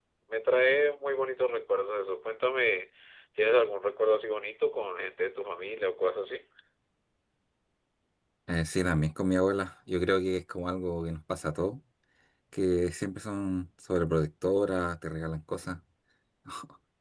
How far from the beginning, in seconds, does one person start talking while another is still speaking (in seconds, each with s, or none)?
none